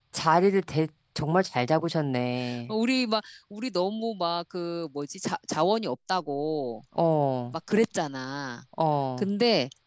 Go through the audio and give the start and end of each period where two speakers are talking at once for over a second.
none

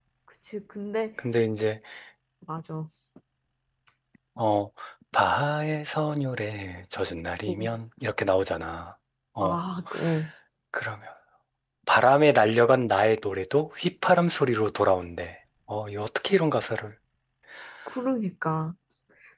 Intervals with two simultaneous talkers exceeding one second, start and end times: none

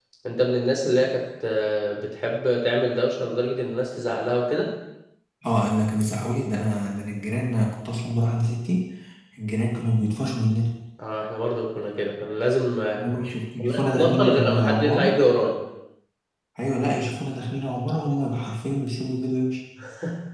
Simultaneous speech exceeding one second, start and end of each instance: 13.6-15.2

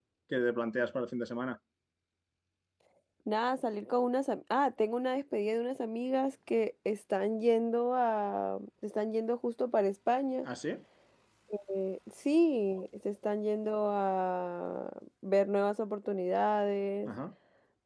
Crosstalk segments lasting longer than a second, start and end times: none

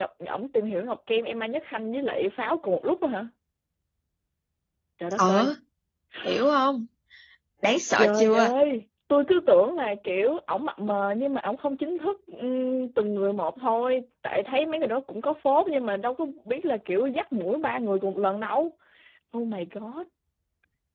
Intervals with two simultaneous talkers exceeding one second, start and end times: none

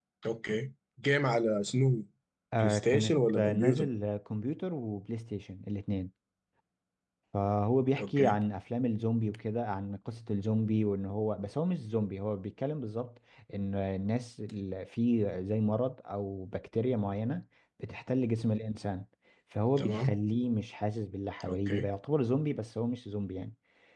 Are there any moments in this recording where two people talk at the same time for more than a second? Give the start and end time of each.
2.6-3.9

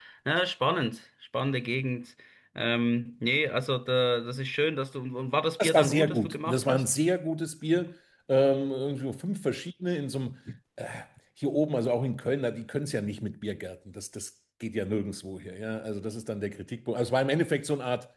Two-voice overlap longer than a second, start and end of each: 5.6-6.8

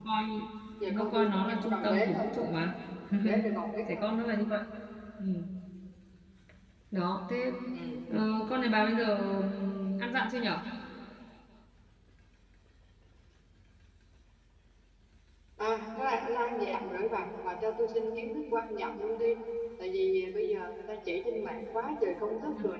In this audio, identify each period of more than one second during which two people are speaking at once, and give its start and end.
0.9-2.2

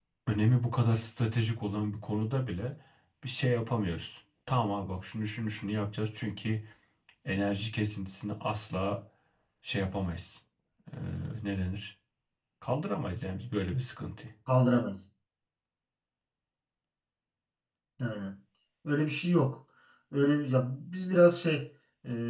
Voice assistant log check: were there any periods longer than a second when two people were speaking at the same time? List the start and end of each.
none

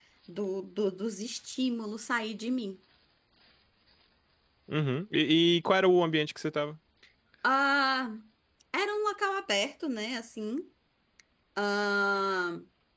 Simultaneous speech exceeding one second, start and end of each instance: none

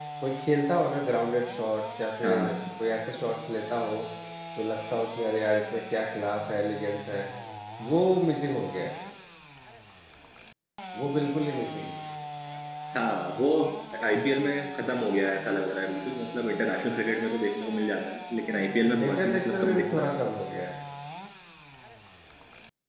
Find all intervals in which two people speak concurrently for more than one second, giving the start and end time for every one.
19.0-20.2

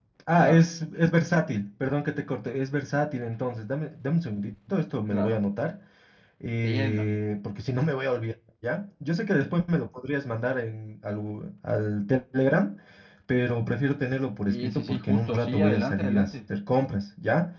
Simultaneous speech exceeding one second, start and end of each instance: 14.5-16.3

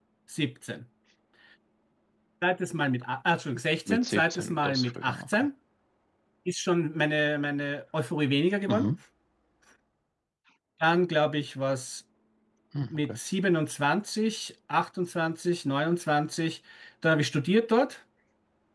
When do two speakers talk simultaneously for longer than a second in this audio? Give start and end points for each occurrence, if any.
3.9-5.5

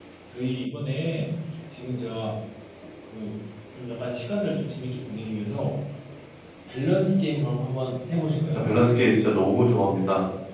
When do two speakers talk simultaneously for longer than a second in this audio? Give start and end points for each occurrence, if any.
none

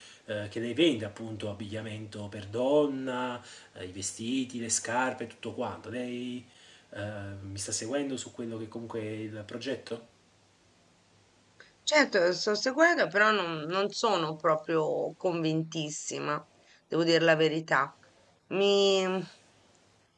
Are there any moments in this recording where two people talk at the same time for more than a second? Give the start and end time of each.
none

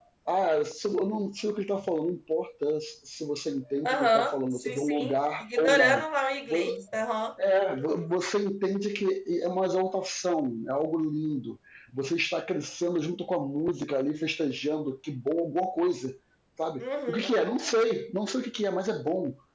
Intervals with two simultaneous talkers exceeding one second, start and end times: 3.8-6.0

